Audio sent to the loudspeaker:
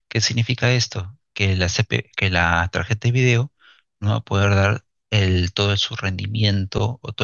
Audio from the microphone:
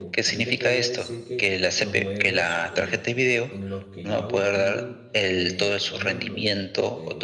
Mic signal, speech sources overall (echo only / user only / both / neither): both